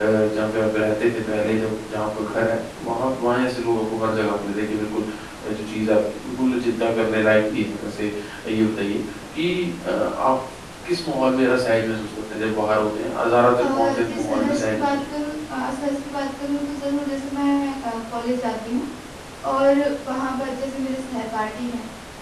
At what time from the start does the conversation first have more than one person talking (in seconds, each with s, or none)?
13.6 s